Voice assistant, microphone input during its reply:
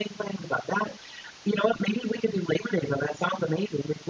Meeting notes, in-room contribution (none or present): none